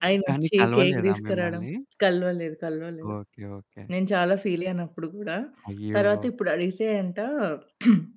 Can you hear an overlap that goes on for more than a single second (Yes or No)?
Yes